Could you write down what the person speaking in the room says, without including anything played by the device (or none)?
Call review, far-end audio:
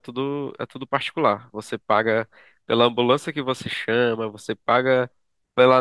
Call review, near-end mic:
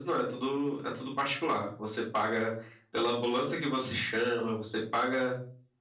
none